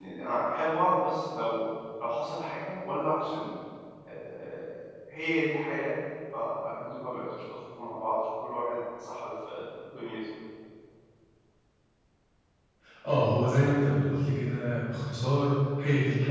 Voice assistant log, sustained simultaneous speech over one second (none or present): none